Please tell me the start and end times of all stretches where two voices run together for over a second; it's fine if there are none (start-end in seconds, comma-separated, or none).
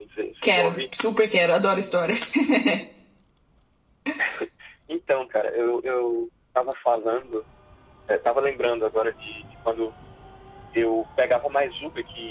none